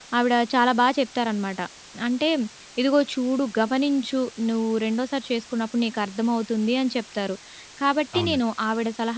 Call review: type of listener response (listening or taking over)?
listening